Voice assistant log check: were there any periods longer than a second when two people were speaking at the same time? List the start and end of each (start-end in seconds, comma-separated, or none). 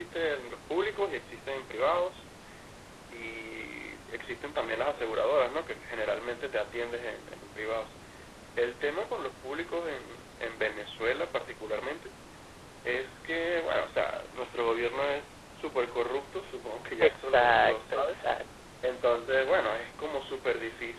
17.0-18.2